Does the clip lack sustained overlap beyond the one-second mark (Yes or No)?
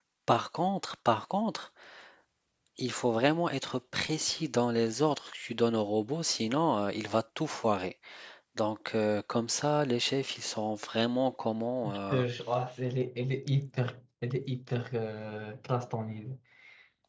Yes